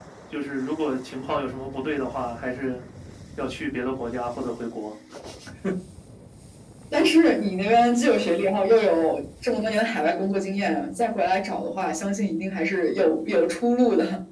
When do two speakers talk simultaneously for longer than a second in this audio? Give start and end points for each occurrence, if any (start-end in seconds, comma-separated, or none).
none